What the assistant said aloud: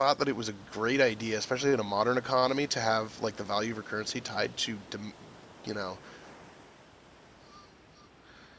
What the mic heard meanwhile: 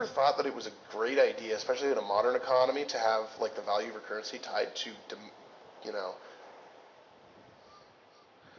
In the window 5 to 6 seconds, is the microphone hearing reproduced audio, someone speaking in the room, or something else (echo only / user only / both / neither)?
echo only